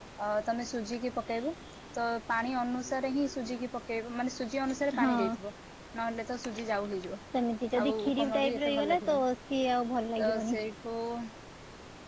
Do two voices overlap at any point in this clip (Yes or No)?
Yes